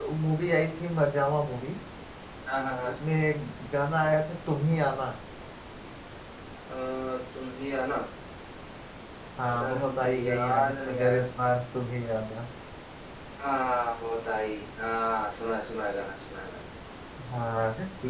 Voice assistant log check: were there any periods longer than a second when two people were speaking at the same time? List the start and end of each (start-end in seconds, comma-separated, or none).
9.6-11.2